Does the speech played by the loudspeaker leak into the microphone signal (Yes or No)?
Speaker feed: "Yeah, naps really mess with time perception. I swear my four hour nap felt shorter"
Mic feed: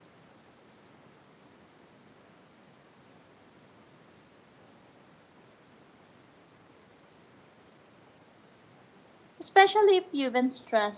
No